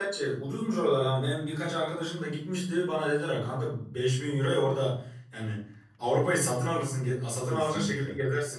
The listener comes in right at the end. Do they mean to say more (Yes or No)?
Yes